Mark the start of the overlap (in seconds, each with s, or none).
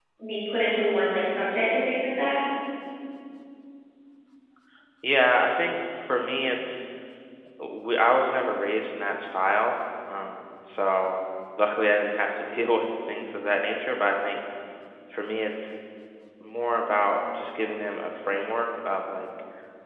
none